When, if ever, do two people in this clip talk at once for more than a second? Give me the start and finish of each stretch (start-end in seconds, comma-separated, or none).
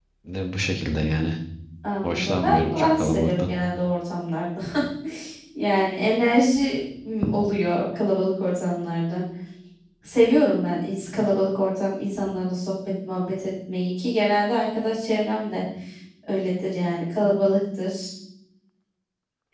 2.0-3.5